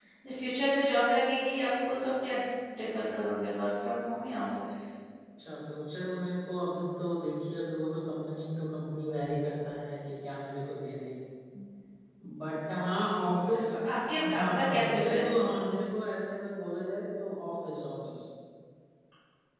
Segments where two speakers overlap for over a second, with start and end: 14.2-15.7

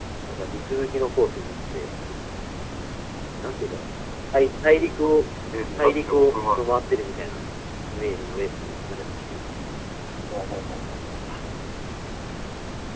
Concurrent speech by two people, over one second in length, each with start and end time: 5.8-7.0

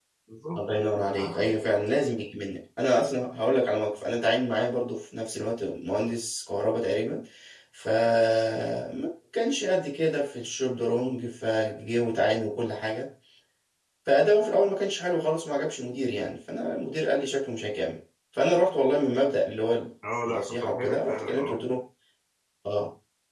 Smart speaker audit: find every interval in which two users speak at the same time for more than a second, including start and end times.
20.2-21.6

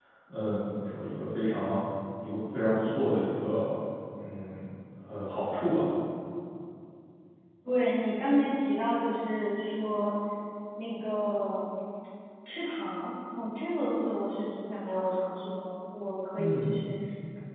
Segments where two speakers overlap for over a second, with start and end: none

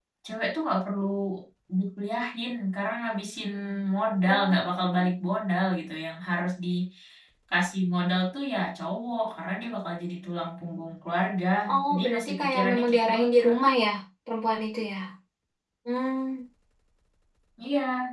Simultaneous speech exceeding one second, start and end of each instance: 11.9-13.6

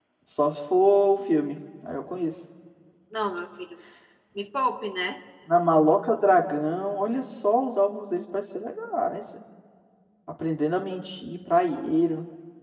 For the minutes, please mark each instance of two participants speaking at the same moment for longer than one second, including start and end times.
none

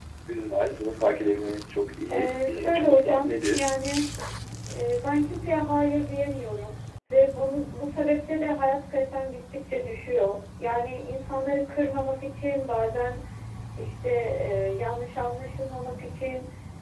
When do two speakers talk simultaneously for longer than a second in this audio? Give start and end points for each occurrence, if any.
2.1-3.7

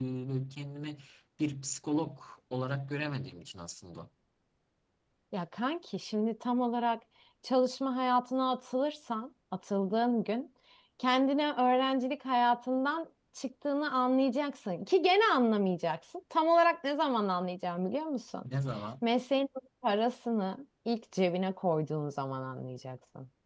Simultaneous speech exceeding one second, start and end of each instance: none

